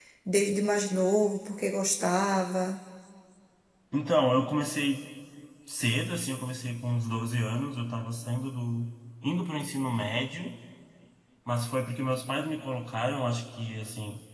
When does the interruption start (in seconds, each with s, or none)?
none